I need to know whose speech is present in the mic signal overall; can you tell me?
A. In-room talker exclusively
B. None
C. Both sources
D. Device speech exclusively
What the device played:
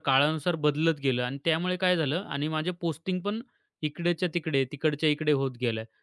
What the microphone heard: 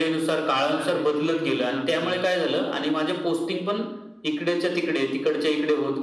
C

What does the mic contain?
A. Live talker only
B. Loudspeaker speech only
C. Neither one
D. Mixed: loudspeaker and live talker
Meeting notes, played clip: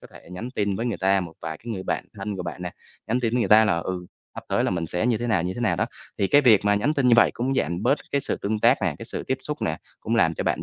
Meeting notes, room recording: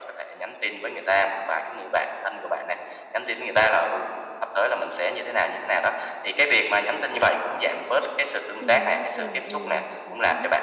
D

